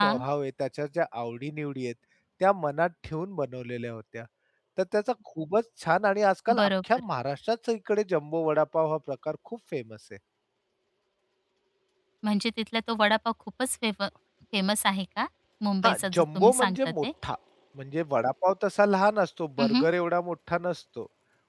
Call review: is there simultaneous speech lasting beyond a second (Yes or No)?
Yes